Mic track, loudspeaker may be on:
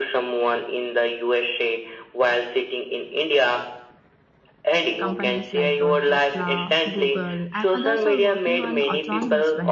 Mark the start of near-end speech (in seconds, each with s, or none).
5.0 s